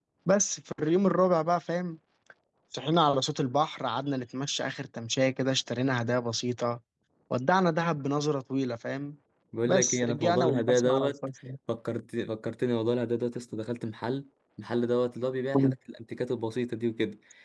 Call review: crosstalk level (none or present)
present